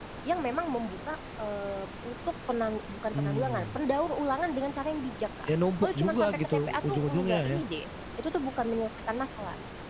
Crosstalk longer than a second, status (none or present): present